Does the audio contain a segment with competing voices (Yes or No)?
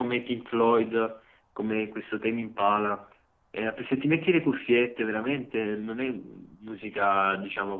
No